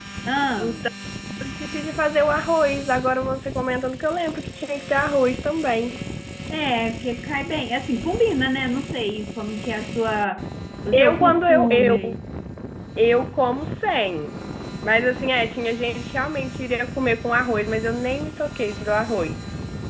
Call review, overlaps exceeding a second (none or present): present